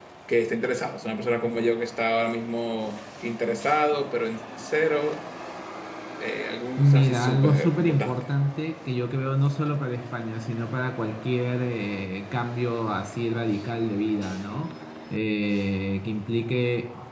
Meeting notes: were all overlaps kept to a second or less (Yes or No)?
No